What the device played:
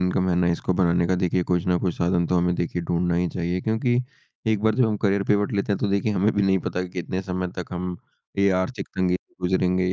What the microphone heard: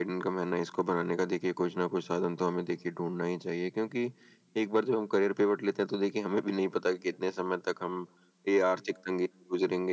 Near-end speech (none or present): none